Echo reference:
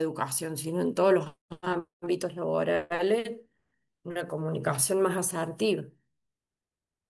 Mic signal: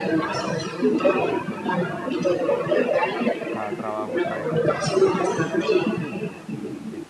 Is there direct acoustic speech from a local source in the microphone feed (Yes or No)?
Yes